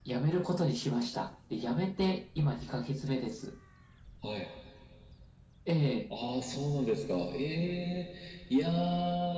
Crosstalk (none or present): none